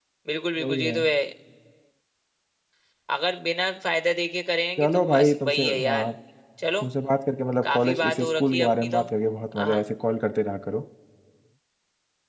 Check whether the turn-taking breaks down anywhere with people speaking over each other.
Yes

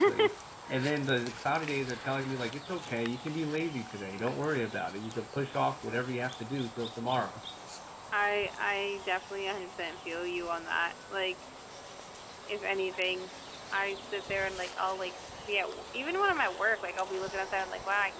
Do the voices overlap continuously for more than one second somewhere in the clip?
No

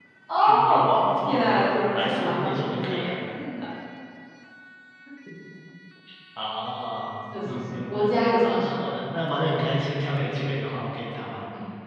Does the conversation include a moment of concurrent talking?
Yes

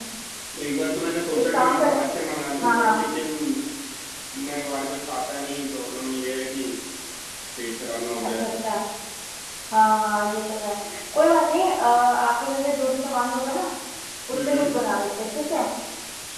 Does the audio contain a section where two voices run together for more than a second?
No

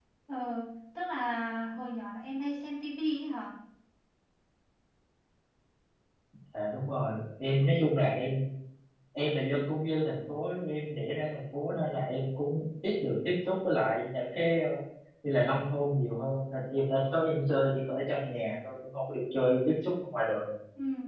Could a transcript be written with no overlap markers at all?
Yes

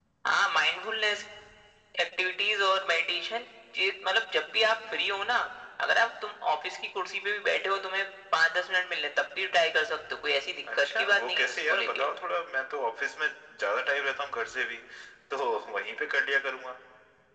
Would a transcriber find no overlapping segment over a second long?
No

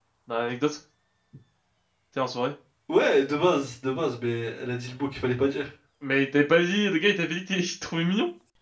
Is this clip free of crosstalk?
Yes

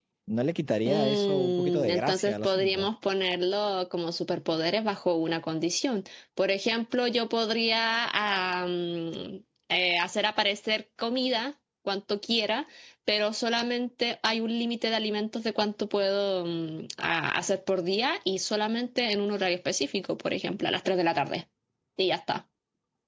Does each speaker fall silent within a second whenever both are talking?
No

